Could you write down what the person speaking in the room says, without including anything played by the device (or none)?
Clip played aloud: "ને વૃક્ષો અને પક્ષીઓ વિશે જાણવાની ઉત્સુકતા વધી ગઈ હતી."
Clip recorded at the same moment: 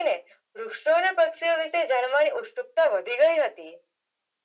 none